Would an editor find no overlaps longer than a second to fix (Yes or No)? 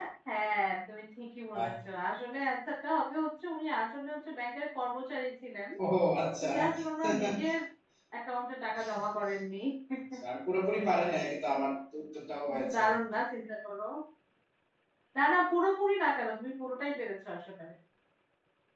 Yes